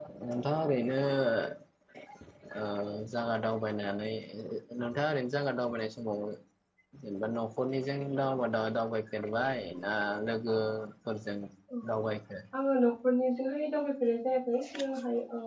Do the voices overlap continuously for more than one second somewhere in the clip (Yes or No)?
No